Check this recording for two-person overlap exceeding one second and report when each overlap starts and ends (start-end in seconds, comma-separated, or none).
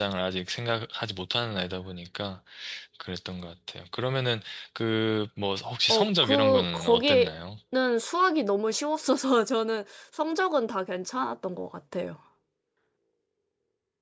5.9-7.3